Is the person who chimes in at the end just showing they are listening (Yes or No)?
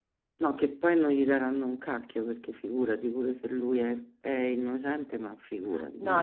No